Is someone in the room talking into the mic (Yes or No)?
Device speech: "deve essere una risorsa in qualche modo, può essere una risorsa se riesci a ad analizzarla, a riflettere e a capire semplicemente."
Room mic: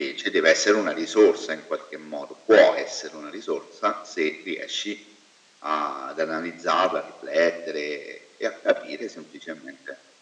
No